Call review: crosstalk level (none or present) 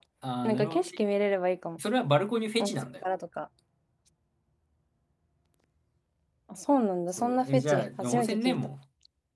present